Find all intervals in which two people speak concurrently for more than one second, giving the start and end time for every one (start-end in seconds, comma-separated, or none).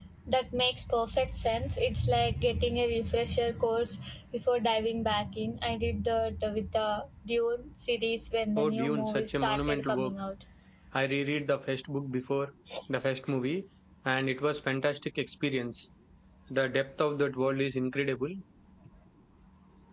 8.6-10.1